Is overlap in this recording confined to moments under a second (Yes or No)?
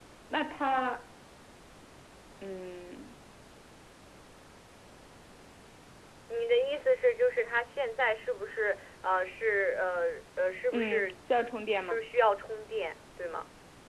Yes